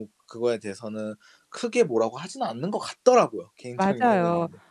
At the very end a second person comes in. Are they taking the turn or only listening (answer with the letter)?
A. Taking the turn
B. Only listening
A